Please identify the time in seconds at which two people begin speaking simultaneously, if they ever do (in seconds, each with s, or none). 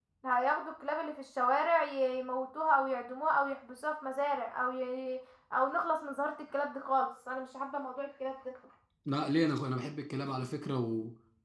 none